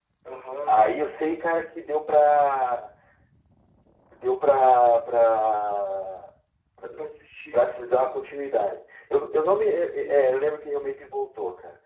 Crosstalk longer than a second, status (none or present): none